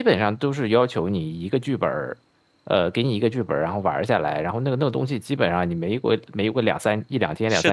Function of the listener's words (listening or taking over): taking over